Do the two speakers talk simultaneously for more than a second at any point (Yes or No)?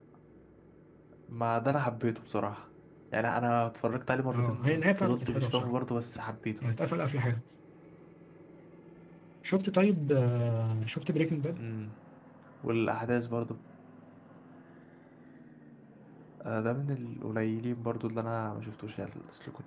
Yes